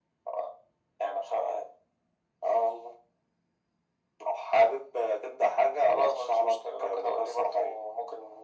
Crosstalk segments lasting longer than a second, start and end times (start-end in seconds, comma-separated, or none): 5.9-7.8